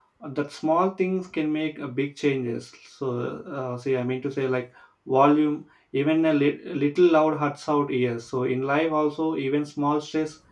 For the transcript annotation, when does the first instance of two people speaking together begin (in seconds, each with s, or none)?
none